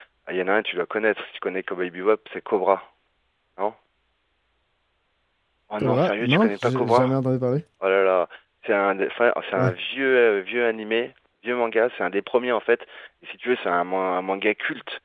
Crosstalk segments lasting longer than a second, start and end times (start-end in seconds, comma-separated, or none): 5.8-7.2